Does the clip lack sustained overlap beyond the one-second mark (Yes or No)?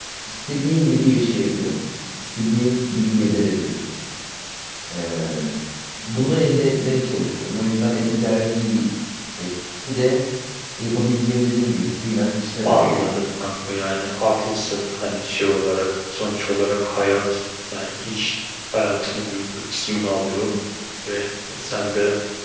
Yes